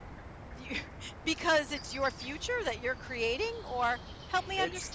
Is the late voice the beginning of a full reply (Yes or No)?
Yes